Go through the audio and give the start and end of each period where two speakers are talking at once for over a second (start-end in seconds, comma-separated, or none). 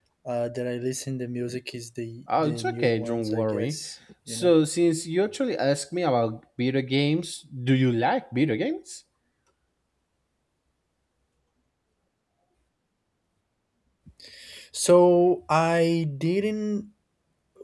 2.4-3.8